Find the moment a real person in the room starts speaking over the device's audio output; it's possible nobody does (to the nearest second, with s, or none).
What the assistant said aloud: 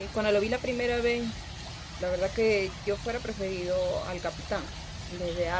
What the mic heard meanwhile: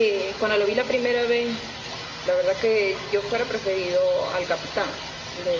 none